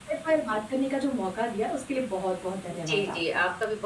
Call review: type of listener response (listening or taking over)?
taking over